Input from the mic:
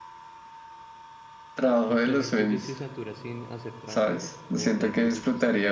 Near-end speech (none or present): present